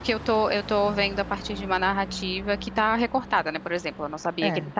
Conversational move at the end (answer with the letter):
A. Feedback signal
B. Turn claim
A